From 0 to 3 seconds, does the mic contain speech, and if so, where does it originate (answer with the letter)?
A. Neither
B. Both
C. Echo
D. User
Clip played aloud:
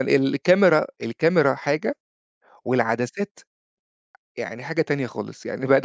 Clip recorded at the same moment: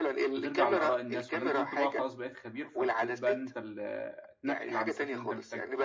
B